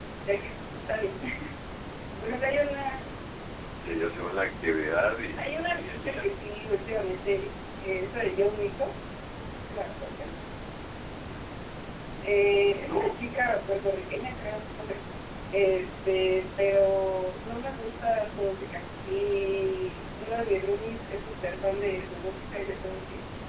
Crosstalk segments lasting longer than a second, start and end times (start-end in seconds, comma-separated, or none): 5.0-6.4